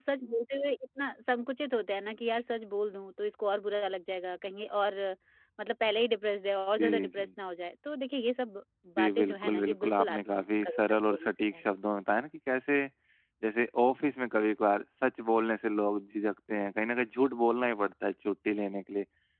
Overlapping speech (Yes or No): Yes